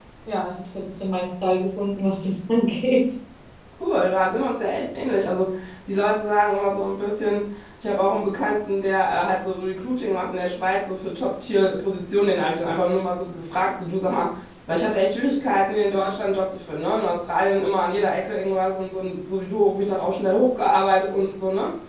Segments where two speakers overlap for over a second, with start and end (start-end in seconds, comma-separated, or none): none